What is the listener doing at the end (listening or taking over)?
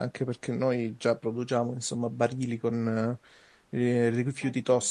listening